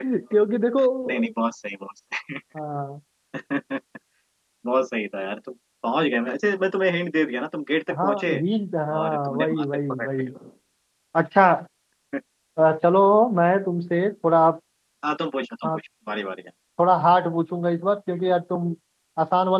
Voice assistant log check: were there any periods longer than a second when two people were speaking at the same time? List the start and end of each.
8.9-10.2

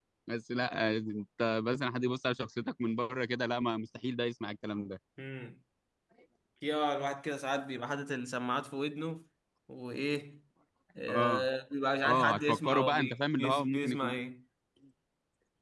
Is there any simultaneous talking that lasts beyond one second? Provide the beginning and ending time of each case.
12.1-14.2

